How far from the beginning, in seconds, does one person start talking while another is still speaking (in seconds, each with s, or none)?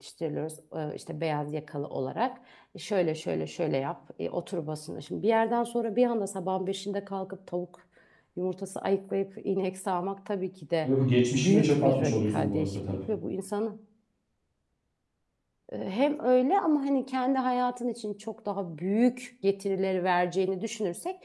11.3 s